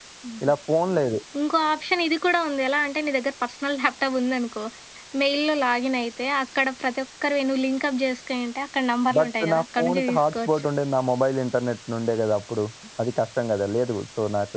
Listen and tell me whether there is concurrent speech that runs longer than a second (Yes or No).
Yes